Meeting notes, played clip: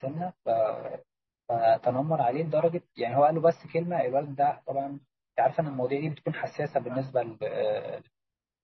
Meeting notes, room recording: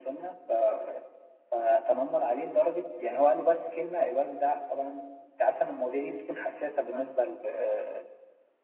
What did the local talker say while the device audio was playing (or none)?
none